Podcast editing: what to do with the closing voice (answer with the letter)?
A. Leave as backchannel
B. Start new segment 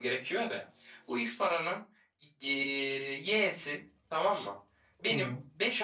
A